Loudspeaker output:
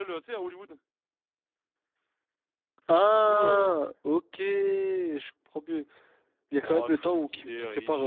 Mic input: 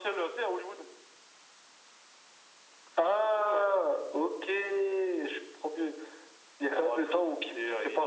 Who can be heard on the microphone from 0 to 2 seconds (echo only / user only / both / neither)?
echo only